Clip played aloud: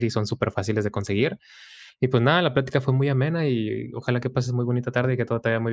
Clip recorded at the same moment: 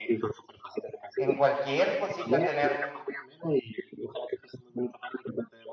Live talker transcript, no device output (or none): En cualquier cosita tener